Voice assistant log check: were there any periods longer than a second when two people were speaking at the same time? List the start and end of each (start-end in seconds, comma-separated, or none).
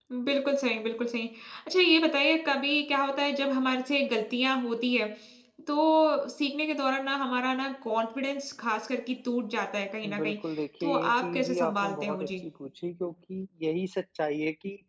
10.8-12.3